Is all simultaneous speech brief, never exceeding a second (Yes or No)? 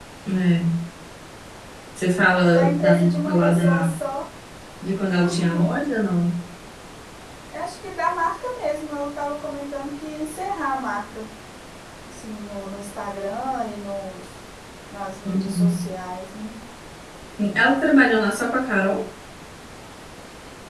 No